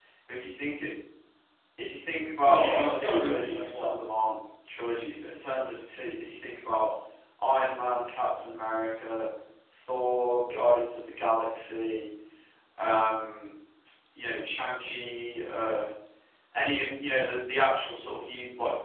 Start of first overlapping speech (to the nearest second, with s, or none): 2 s